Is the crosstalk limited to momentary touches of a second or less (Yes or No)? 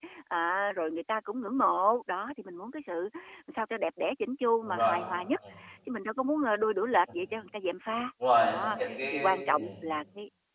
No